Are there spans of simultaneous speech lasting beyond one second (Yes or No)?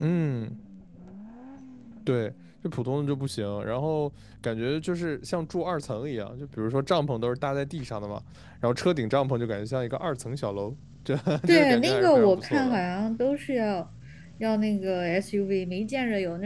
Yes